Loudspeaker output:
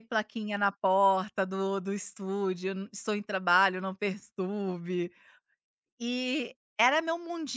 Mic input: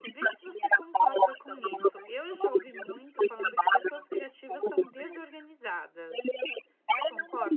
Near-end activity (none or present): present